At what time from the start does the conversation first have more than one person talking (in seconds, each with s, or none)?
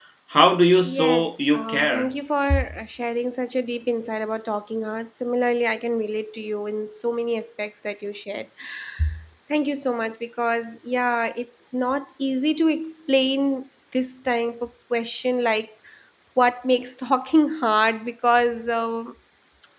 0.8 s